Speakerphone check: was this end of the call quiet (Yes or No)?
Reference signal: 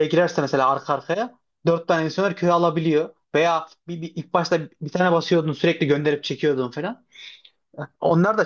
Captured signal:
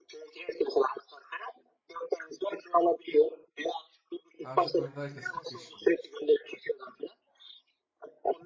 No